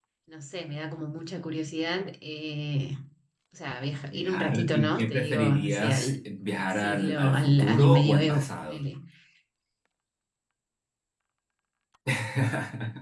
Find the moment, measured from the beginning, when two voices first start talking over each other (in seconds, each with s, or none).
4.1 s